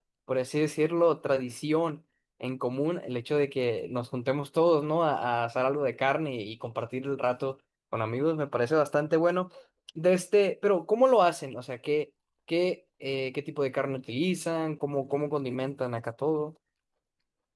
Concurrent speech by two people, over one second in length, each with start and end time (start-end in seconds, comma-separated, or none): none